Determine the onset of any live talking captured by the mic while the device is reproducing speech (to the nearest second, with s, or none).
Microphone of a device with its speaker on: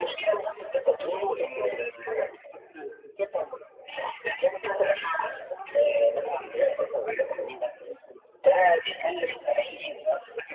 none